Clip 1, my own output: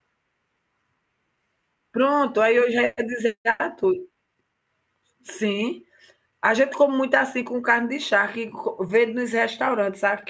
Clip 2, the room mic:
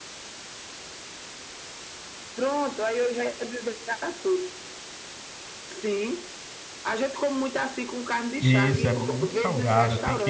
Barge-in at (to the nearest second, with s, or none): 8 s